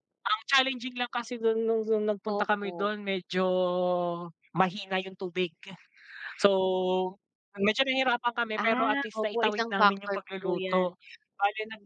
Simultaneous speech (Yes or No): Yes